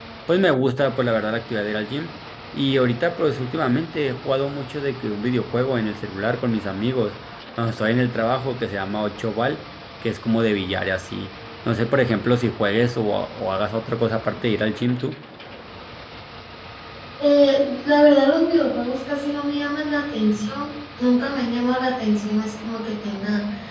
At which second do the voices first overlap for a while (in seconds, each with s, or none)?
none